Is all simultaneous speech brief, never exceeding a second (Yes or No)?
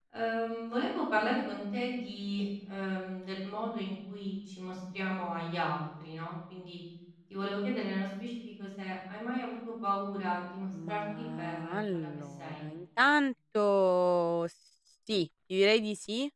No